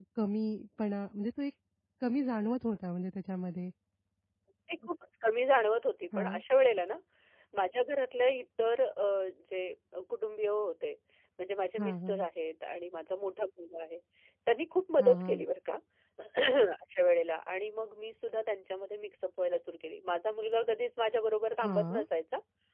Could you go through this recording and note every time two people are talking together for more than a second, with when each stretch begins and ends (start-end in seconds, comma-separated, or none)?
none